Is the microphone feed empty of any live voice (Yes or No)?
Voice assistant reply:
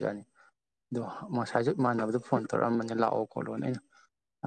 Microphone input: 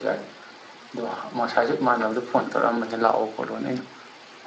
Yes